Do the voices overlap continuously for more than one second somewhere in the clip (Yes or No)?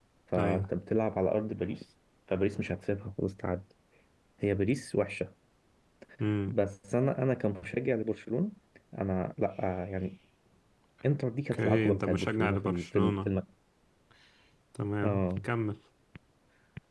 Yes